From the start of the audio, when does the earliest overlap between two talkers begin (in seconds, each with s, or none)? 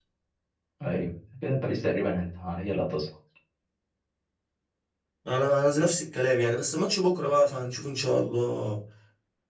none